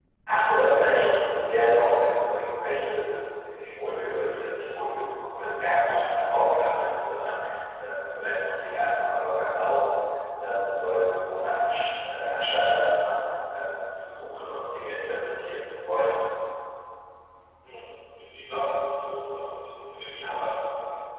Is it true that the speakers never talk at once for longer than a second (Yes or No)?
Yes